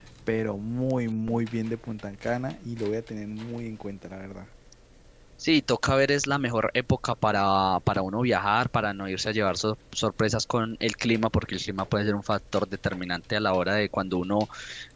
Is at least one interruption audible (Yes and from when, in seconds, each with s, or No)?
No